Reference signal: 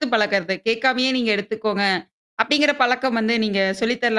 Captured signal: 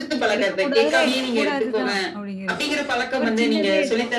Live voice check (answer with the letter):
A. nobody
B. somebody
B